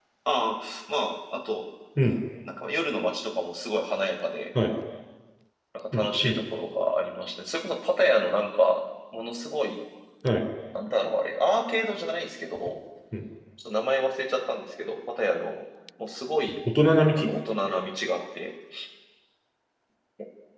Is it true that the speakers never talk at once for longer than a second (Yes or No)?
Yes